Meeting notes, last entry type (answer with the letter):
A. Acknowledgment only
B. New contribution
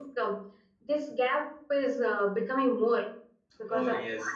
B